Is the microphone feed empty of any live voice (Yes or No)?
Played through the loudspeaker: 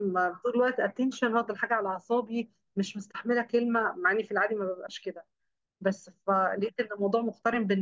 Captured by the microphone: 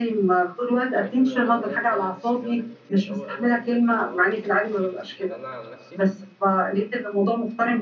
No